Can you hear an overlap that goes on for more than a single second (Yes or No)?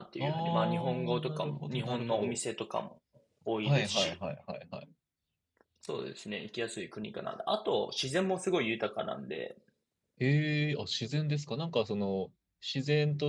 Yes